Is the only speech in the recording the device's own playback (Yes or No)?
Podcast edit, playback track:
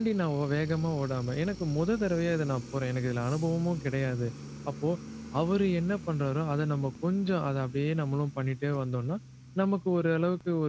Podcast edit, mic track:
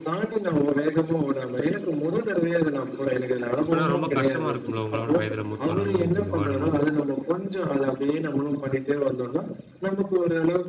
No